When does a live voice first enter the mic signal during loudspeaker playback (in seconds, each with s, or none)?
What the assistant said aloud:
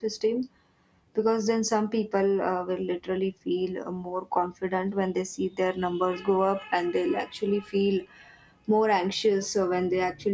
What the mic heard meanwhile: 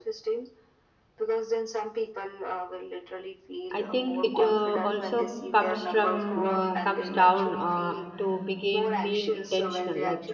3.7 s